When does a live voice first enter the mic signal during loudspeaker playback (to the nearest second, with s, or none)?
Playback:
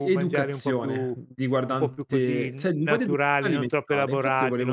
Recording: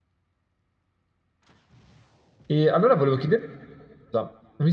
2 s